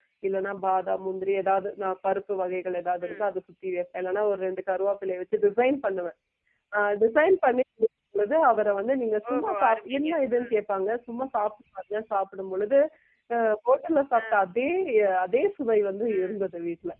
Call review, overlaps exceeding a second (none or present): present